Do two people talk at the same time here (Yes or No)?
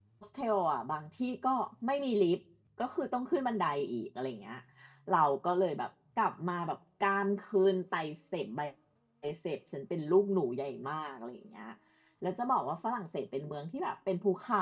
No